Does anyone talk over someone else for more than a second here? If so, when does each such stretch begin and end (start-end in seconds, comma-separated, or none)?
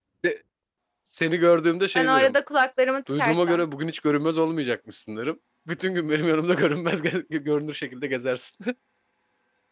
none